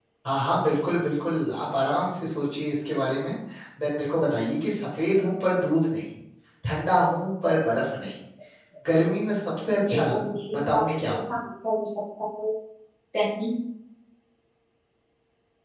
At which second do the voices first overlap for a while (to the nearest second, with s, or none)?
10 s